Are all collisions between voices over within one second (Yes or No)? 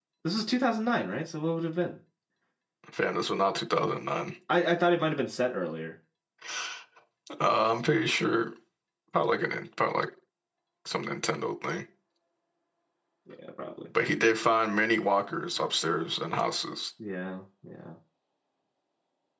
Yes